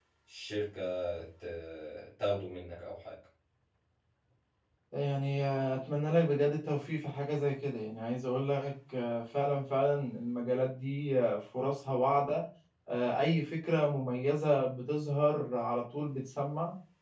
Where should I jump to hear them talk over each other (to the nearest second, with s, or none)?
none